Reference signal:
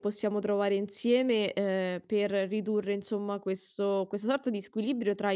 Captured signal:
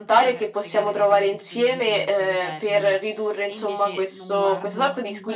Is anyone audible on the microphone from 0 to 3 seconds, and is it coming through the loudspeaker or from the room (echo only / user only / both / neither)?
both